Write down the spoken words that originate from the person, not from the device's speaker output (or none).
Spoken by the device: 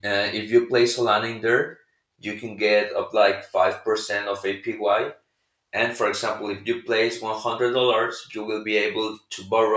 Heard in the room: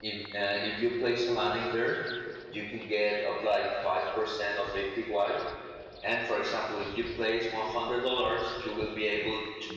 none